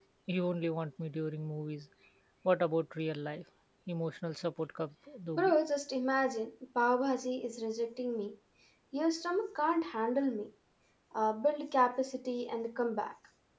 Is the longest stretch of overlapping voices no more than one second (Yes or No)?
Yes